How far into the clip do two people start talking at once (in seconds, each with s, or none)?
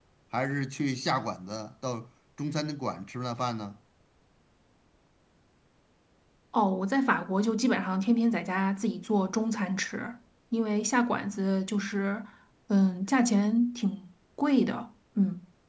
none